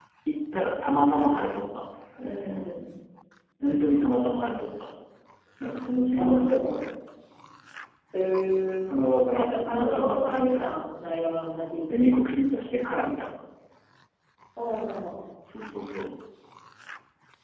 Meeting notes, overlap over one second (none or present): present